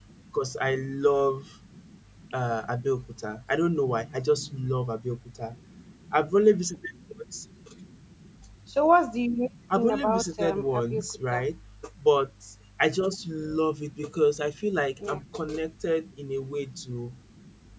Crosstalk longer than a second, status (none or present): present